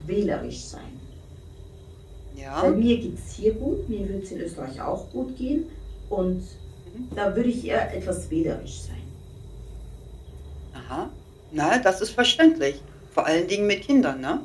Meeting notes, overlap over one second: none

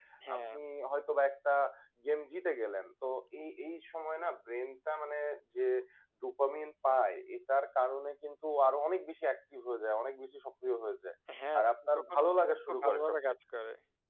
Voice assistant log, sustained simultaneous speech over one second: present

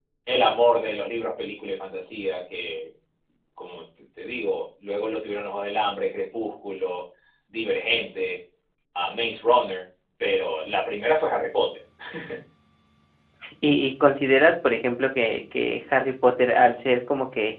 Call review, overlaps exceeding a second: none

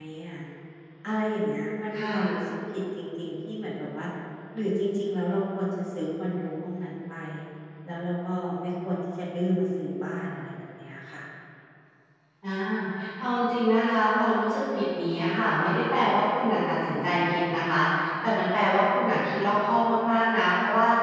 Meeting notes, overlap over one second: none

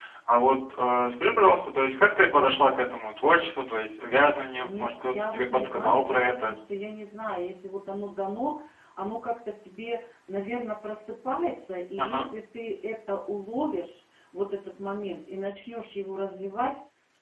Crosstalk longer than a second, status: present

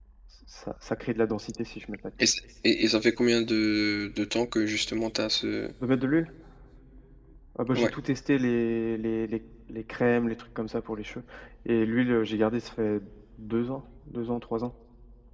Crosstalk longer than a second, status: none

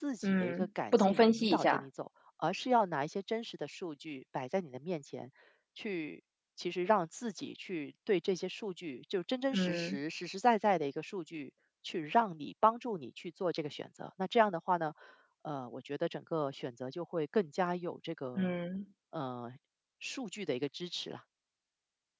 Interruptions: present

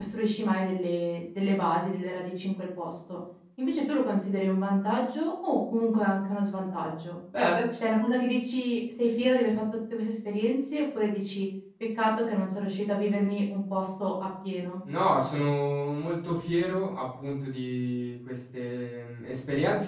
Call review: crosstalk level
none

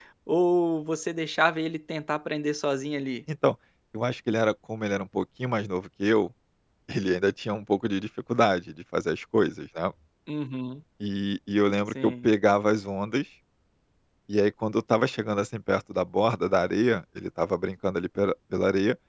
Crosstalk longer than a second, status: none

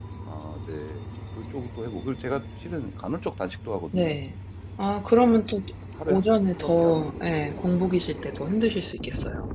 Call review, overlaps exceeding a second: present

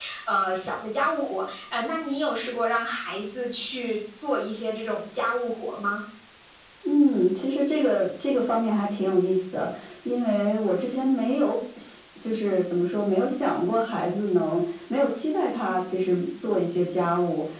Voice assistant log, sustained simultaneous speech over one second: none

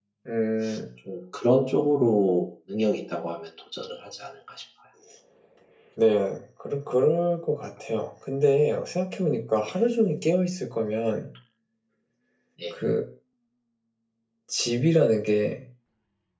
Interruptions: none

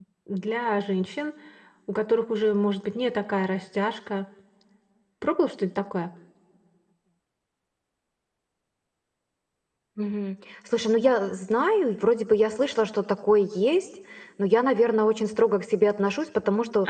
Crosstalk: none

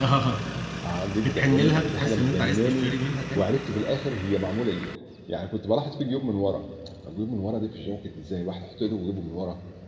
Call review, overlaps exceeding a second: present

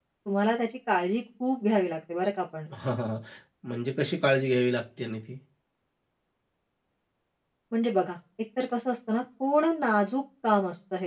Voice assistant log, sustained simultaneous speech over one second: none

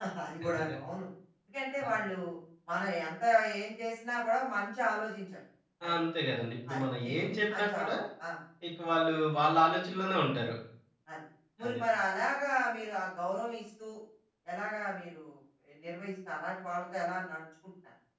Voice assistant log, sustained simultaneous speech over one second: present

